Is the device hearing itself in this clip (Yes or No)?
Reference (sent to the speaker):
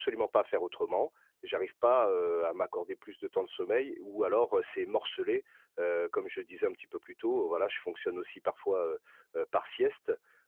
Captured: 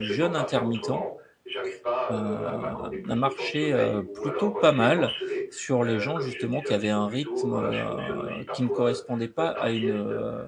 Yes